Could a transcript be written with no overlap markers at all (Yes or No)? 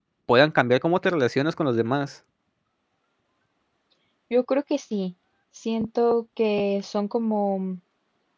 Yes